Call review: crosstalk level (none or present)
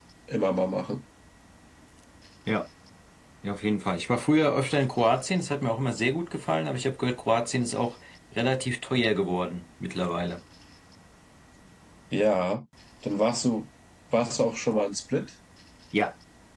none